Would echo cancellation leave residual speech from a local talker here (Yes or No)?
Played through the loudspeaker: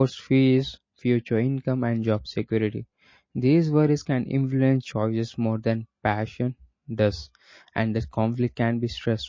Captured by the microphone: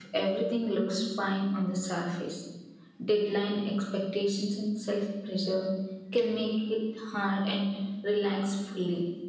Yes